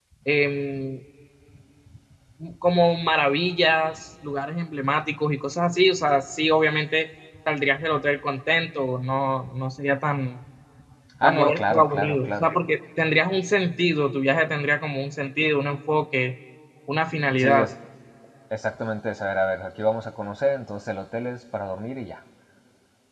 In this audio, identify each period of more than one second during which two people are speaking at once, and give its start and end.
11.2-12.5

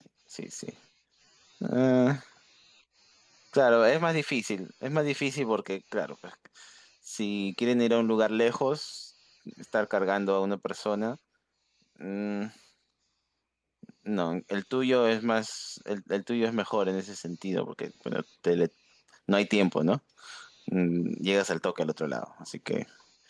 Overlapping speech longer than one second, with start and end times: none

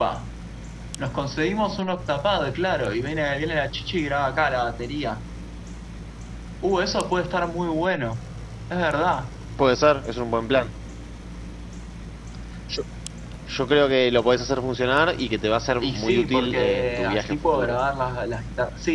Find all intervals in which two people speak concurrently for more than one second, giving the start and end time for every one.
15.8-17.8

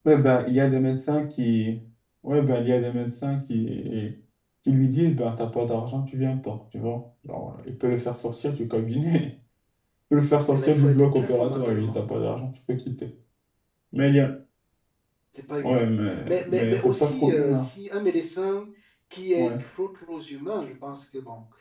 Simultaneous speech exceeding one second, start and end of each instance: 10.5-12.0, 16.2-17.7

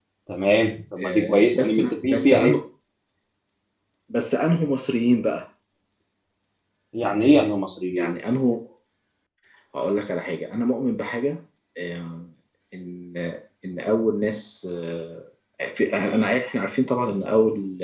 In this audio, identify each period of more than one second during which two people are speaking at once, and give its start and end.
1.0-2.6

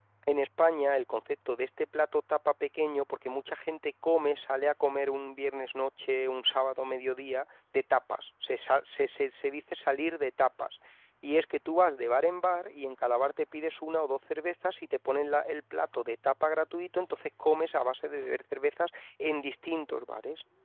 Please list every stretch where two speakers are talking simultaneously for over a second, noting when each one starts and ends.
none

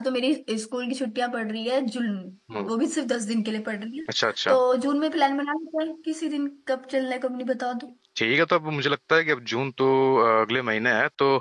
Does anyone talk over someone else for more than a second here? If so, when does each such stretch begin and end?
none

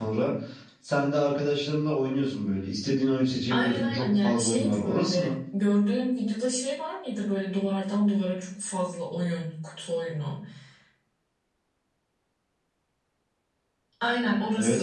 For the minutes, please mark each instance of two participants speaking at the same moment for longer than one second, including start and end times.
3.5-5.3

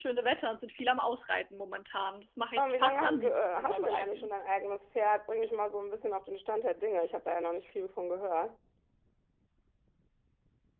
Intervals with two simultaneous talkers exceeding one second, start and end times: 2.6-4.3

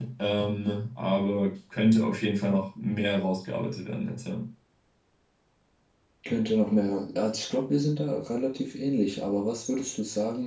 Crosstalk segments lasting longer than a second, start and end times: none

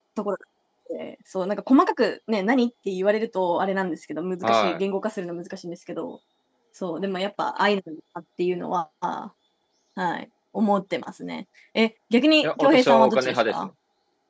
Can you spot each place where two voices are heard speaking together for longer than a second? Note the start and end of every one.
12.4-13.7

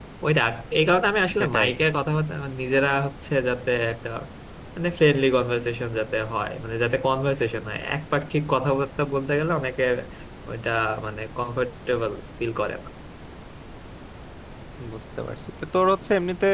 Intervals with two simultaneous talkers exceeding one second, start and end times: none

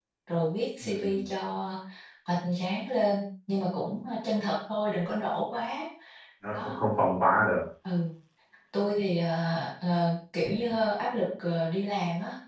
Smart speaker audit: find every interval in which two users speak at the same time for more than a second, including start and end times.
none

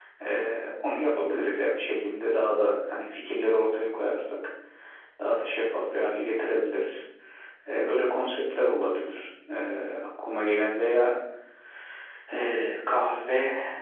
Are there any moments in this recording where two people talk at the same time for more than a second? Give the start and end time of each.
none

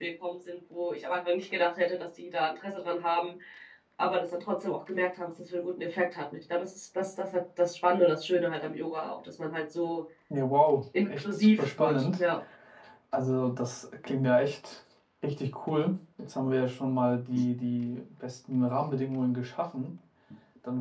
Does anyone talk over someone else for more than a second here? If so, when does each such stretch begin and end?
11.0-12.2

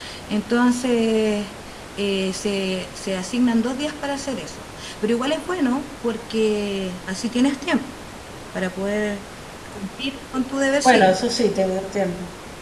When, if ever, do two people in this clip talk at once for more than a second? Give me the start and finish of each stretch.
none

